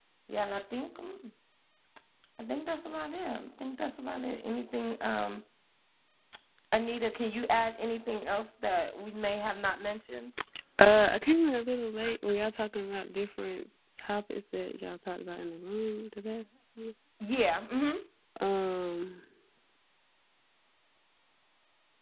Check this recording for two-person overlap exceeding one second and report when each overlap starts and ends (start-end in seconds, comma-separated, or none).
none